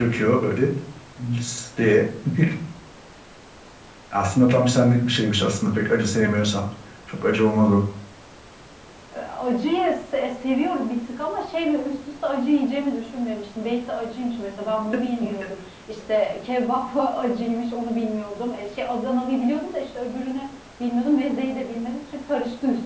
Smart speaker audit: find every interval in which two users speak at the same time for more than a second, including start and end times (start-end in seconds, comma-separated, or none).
none